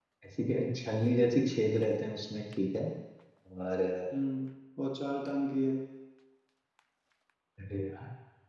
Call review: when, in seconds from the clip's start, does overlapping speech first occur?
none

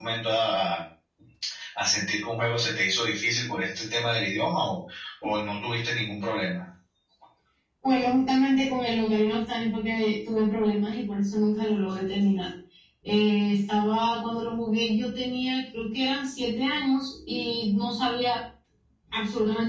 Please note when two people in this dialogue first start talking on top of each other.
none

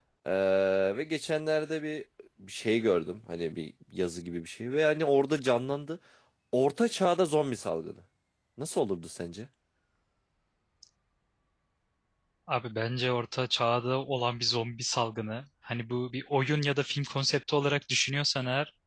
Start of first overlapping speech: none

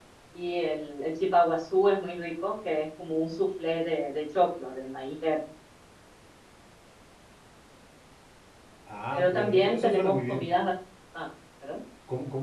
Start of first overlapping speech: 9 s

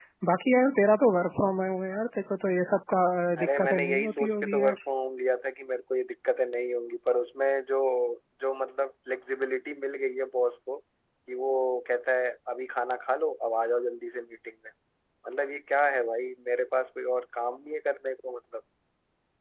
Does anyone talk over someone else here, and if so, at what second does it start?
3 s

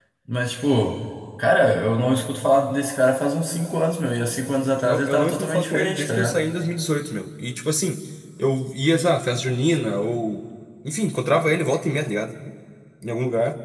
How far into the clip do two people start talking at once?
5 s

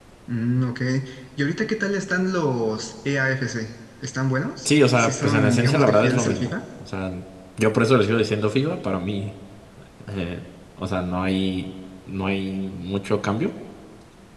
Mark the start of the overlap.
5 s

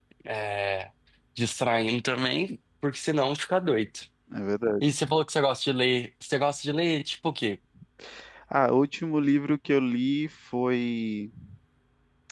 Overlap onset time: none

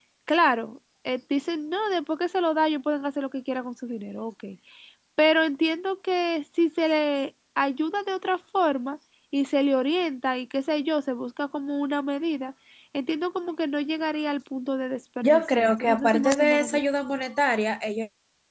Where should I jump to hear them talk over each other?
15 s

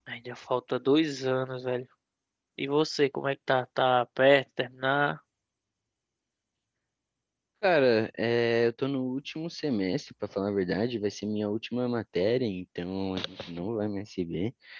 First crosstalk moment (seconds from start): none

